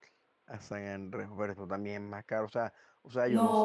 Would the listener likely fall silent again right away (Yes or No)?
No